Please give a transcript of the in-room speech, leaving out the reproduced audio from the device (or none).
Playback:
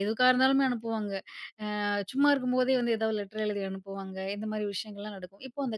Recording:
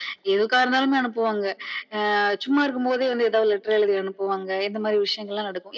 none